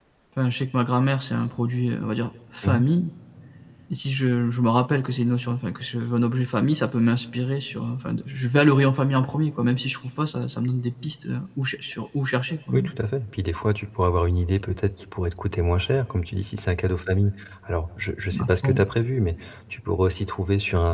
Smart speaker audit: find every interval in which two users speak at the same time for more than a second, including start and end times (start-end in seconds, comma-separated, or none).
none